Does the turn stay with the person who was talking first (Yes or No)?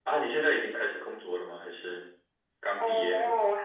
No